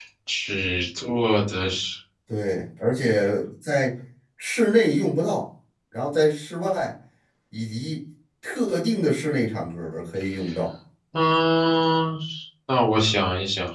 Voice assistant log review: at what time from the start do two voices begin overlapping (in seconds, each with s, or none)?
none